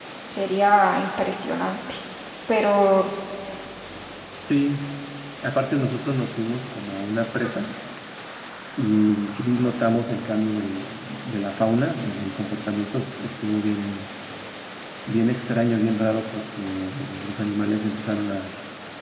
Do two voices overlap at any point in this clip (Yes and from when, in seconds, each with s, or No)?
No